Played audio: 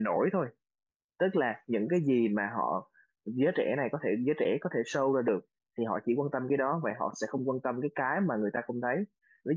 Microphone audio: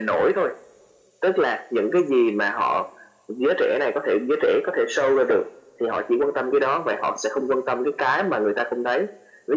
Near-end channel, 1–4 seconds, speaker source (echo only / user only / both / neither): echo only